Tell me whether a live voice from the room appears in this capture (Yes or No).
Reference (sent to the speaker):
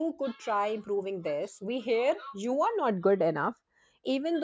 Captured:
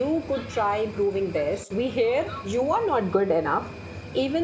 No